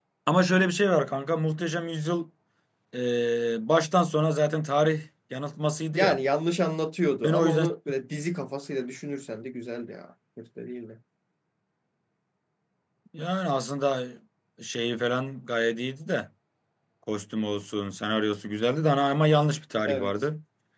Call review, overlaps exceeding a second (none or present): none